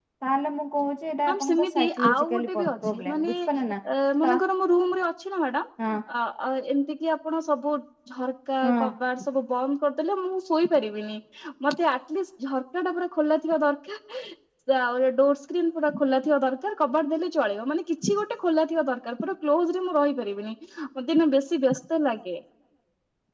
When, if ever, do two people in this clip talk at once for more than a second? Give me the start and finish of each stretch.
1.3-3.3

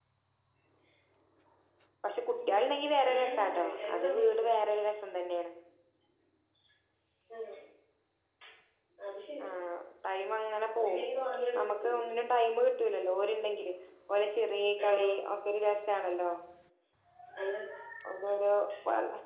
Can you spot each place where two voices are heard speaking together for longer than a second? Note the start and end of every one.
3.1-4.5

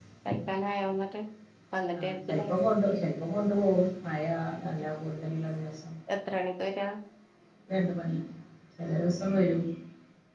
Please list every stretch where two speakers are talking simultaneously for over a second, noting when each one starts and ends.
none

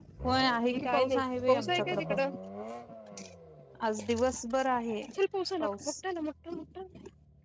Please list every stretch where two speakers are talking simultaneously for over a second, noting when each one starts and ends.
0.6-2.2

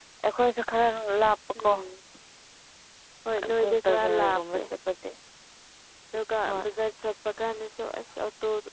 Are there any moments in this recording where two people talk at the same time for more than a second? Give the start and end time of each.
3.4-4.6

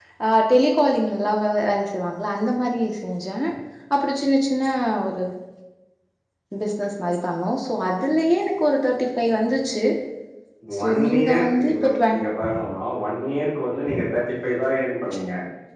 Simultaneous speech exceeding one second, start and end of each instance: 10.8-12.2

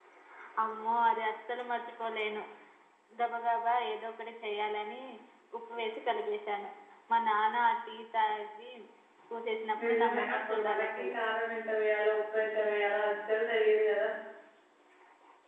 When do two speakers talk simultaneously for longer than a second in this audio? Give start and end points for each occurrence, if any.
9.8-11.2

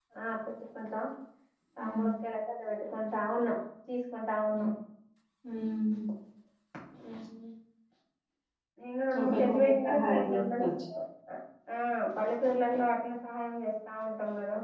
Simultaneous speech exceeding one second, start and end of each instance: 9.2-10.7

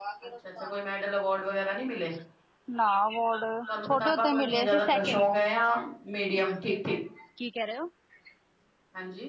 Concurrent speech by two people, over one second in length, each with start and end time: 3.7-5.3

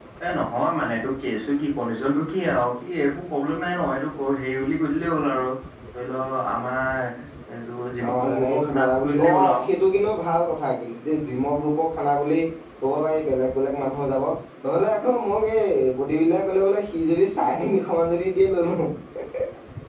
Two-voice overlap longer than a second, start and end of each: 8.3-9.6

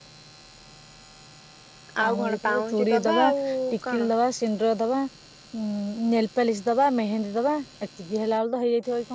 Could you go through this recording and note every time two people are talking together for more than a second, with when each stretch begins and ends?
2.0-3.3

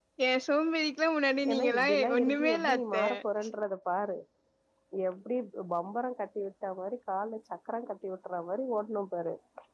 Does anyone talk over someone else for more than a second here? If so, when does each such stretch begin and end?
1.5-3.0

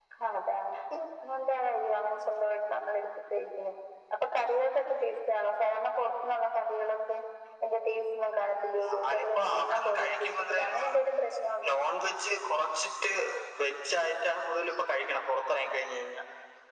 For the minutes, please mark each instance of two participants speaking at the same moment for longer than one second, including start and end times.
9.1-10.8

